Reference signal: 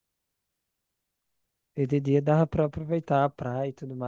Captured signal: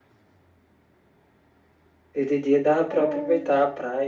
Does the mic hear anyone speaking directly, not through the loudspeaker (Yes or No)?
Yes